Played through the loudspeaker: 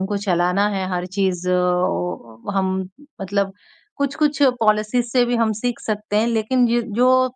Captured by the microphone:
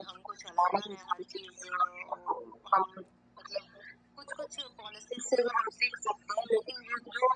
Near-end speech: none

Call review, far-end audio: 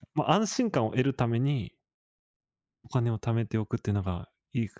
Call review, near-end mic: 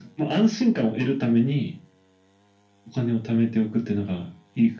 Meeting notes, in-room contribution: none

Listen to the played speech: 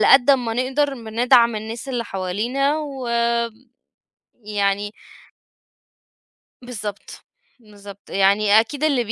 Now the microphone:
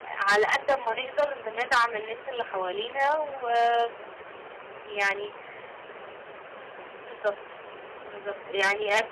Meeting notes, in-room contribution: none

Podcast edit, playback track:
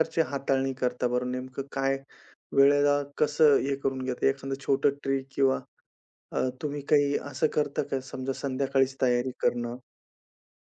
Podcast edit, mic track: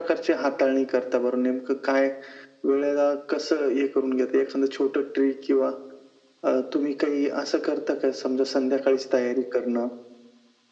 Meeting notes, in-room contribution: none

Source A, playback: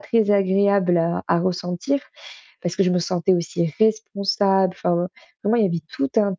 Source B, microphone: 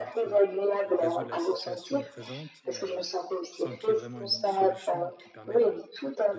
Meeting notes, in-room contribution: present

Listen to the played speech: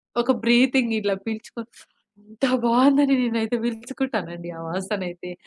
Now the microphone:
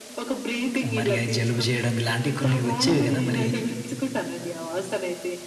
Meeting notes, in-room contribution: present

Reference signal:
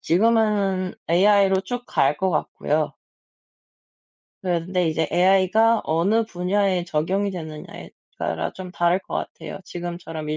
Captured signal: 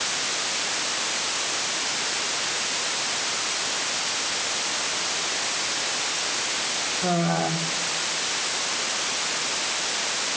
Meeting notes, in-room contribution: present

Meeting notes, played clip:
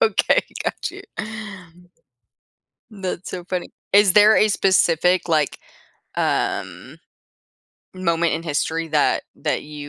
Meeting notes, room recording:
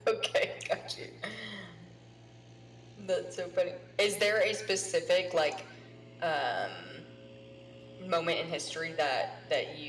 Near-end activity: none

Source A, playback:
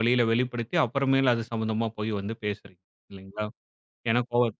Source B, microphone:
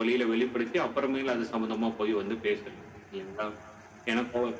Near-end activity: none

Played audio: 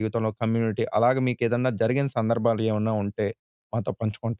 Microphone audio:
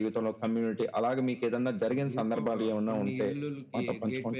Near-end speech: present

